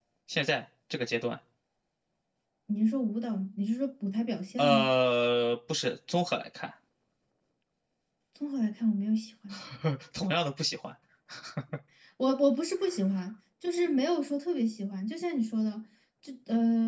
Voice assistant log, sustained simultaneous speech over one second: none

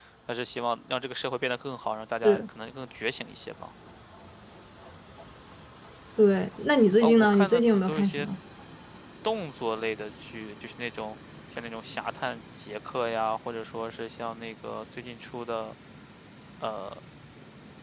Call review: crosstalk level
present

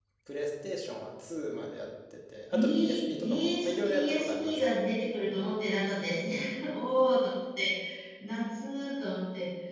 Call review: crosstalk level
present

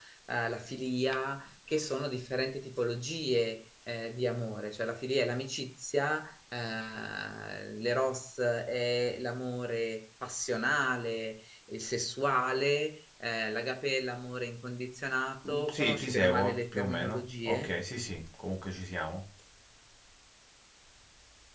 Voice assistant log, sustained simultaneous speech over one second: present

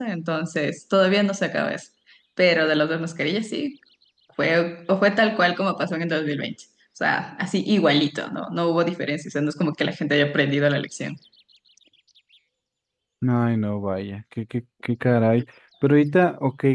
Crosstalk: none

